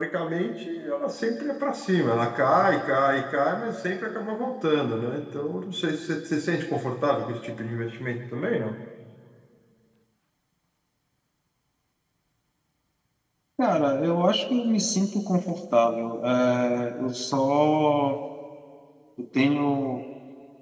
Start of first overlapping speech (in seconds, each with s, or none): none